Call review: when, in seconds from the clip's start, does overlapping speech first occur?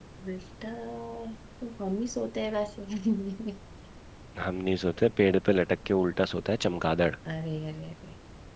none

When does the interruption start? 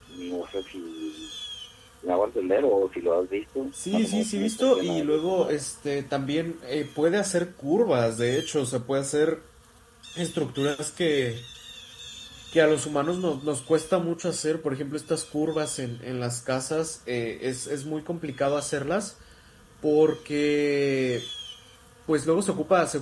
3.7 s

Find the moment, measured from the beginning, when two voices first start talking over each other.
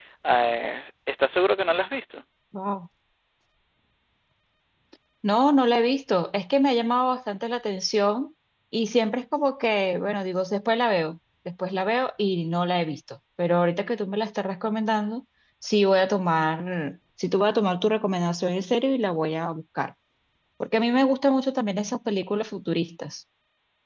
none

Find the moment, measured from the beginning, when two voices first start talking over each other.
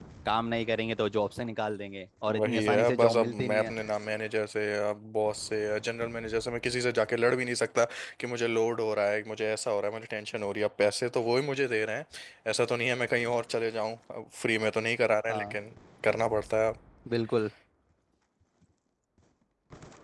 2.3 s

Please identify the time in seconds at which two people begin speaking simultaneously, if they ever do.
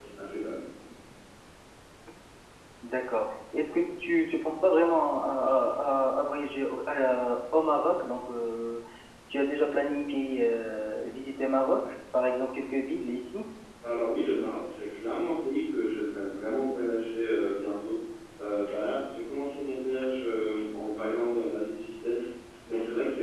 none

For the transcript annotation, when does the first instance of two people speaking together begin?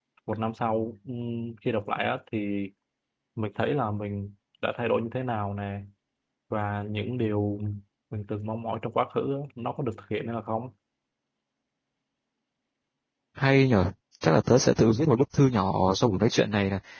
none

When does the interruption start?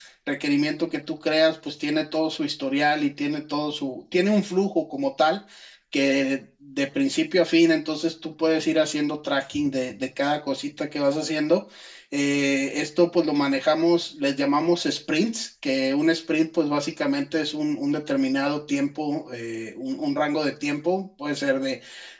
none

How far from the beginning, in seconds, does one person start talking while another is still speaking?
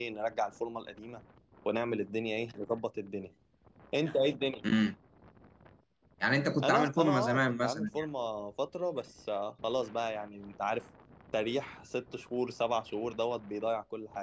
6.6 s

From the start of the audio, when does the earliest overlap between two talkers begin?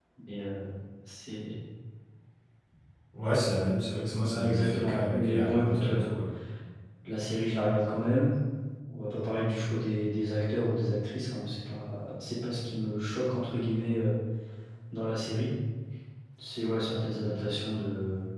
4.2 s

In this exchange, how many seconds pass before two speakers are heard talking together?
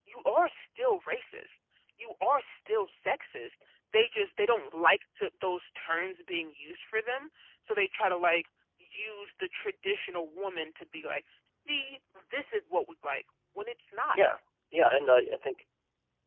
none

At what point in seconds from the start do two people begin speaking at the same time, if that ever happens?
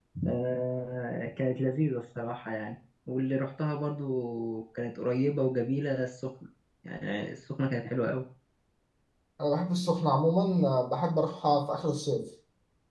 none

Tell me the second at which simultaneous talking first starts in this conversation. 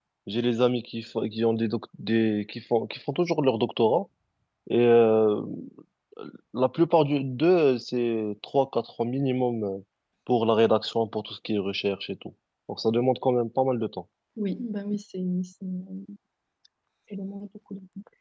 none

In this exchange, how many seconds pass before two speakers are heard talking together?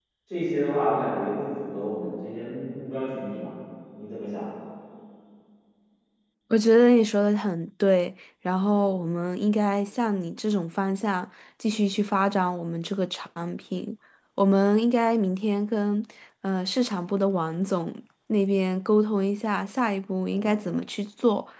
none

